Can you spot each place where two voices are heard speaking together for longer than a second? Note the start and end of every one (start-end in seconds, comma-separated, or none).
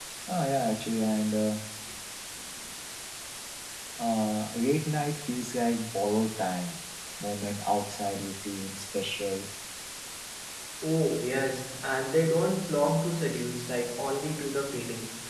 none